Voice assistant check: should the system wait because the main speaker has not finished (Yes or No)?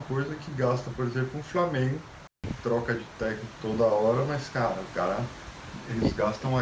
Yes